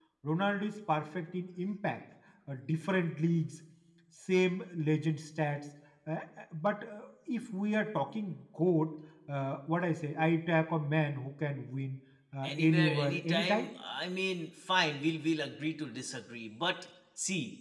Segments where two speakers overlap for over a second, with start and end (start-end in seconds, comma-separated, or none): 12.4-13.7